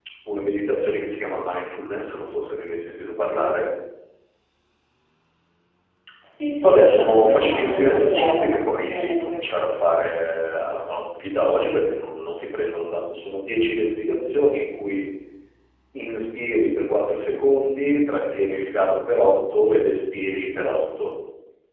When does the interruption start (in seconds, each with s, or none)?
6.6 s